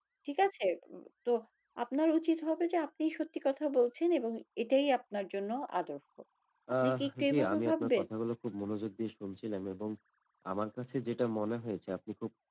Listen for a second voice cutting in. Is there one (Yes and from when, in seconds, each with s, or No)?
Yes, from 6.8 s